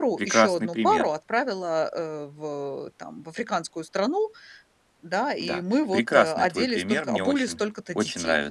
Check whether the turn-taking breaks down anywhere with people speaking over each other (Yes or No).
Yes